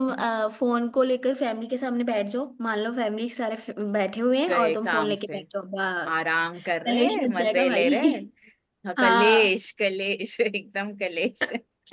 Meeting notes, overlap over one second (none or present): present